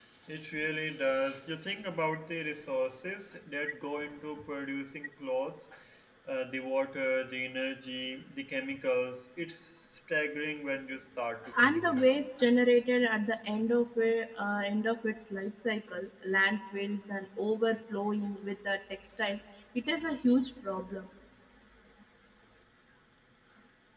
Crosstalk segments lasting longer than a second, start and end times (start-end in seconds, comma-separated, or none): none